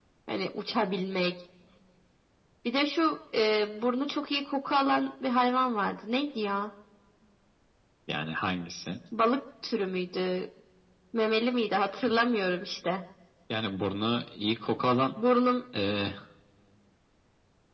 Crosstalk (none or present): none